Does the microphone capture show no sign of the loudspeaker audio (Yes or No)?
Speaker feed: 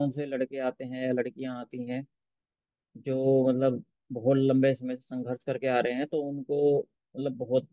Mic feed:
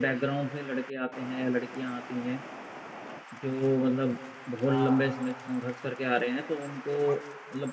No